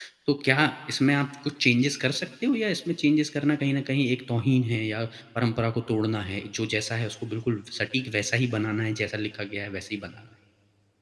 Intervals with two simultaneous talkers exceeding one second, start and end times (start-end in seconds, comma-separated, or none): none